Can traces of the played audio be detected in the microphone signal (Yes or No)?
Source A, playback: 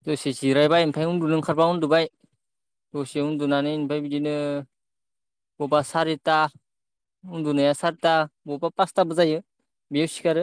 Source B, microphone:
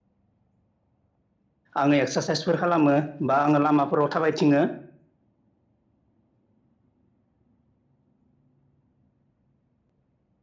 No